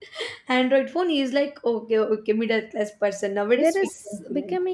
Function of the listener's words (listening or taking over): taking over